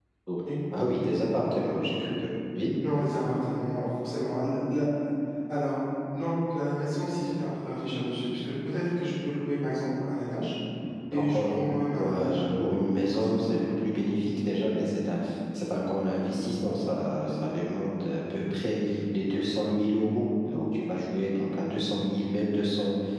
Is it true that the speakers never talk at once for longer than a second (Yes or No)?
No